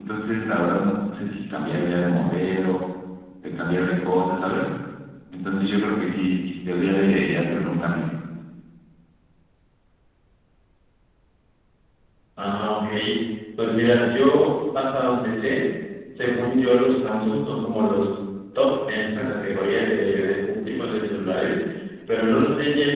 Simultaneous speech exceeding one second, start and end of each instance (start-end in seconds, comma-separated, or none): none